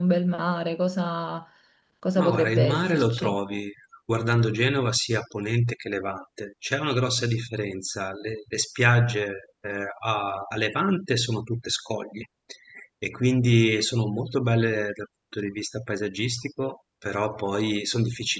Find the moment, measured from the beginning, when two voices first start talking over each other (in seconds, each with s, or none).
2.2 s